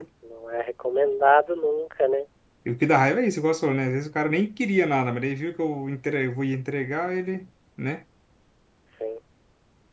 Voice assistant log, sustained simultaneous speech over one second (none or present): none